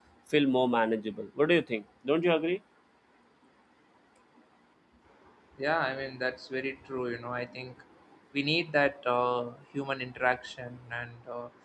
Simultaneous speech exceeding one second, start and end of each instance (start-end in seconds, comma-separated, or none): none